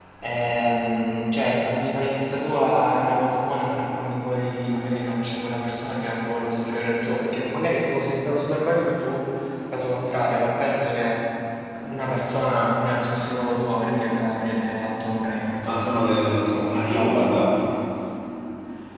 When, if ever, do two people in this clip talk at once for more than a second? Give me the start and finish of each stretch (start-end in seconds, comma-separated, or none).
15.6-17.4